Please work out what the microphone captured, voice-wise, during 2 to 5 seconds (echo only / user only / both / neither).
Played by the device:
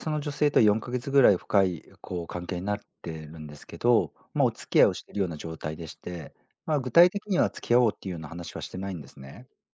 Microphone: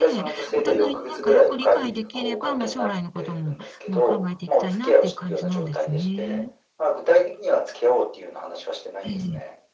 both